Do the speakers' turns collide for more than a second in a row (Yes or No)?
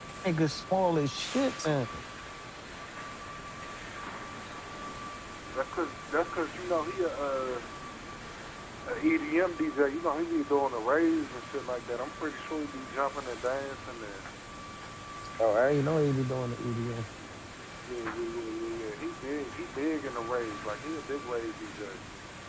No